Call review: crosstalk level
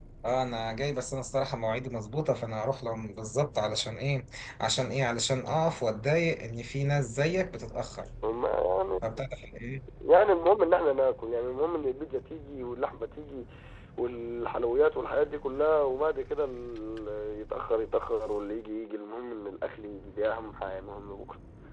none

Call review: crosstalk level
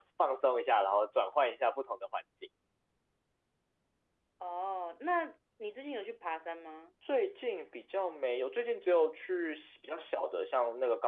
none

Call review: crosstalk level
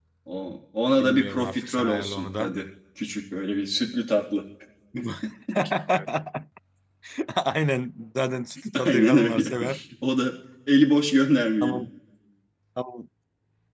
present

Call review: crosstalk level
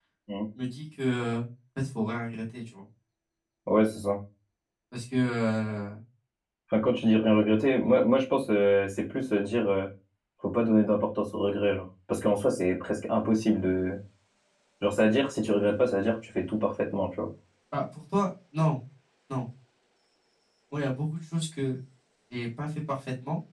none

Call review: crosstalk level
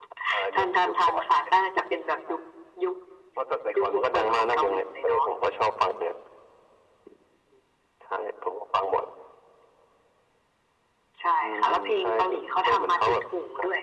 present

